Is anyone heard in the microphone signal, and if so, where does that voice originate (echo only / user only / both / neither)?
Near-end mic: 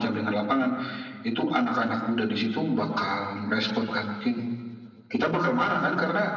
echo only